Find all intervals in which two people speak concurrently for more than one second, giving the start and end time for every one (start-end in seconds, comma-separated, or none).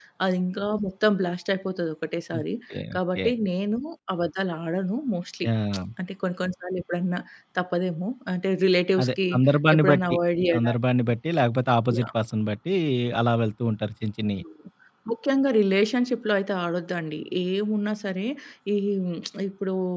none